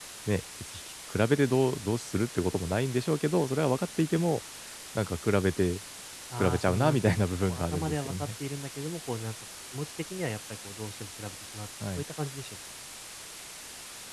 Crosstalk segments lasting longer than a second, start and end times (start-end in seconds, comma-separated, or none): 6.4-8.1